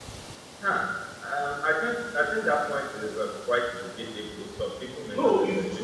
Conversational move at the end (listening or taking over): taking over